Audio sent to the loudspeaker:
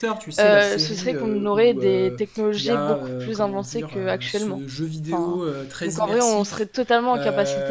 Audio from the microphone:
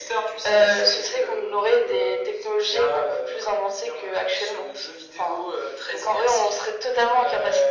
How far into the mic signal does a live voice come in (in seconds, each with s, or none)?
none